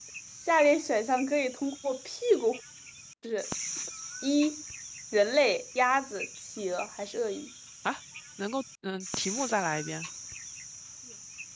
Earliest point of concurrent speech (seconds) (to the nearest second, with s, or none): none